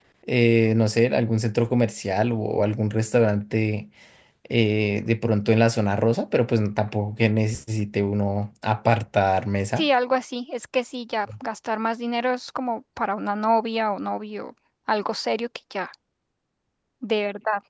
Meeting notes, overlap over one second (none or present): none